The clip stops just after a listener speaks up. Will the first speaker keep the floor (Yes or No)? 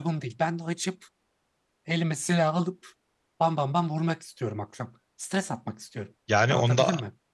No